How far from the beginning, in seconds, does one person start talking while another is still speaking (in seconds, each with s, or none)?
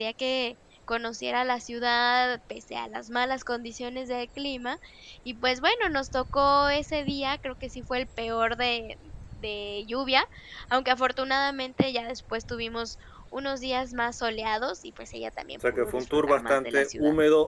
15.6 s